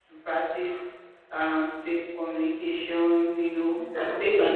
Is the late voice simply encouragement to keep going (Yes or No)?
Yes